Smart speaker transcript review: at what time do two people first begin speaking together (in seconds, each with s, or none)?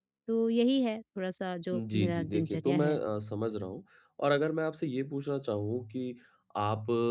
1.7 s